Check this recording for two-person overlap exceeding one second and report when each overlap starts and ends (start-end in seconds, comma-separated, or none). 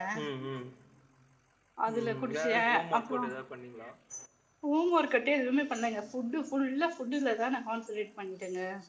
2.0-3.2